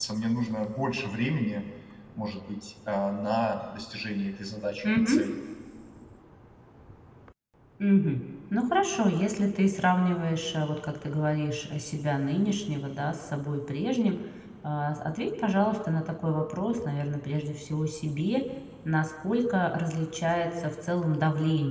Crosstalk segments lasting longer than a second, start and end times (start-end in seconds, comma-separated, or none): none